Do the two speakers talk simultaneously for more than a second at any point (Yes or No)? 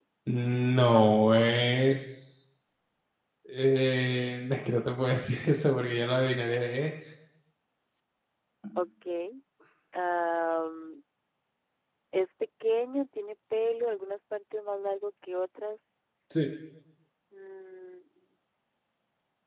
No